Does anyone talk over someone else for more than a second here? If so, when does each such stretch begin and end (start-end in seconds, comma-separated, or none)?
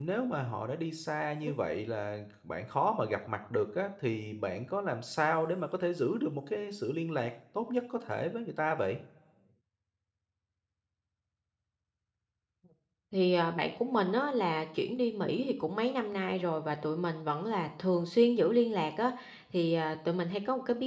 none